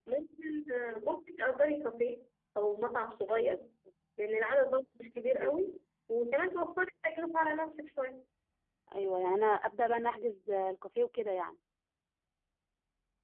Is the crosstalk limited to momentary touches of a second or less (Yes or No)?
Yes